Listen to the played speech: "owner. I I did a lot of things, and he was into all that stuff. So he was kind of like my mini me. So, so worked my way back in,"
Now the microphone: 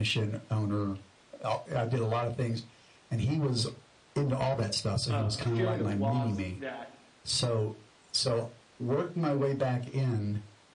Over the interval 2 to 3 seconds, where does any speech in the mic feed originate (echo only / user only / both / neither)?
echo only